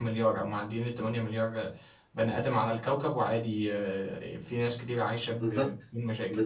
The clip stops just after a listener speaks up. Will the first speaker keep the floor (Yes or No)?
No